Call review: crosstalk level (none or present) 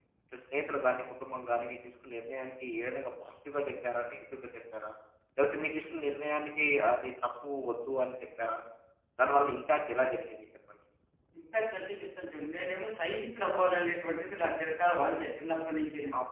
none